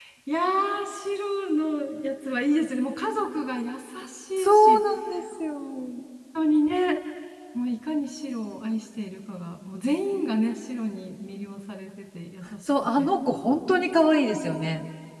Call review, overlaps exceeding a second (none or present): none